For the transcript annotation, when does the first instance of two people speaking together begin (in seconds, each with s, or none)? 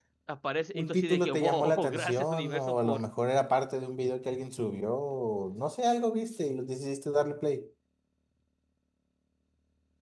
0.7 s